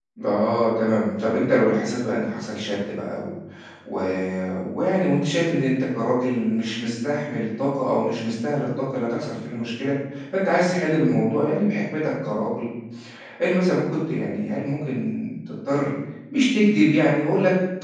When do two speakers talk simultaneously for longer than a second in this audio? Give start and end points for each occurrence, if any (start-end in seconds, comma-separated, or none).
none